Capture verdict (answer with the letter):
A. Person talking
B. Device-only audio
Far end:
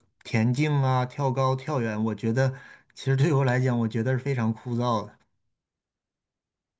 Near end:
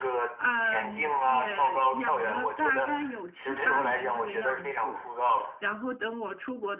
A